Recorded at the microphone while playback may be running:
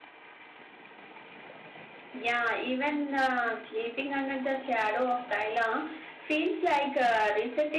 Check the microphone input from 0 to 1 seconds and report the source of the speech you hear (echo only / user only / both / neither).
neither